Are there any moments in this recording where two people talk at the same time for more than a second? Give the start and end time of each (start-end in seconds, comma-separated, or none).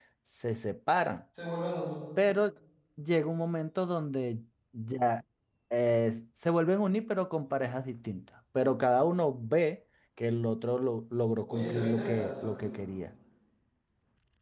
11.5-12.9